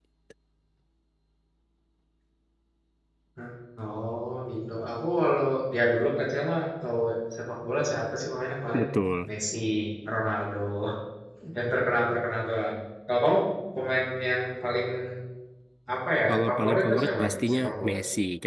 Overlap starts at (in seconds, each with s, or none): 16.3 s